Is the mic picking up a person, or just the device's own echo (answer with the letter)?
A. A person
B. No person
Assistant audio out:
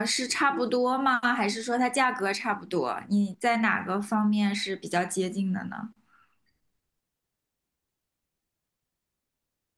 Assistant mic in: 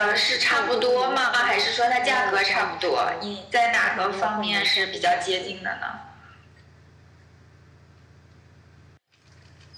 A